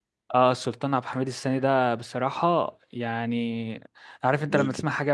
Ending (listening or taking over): listening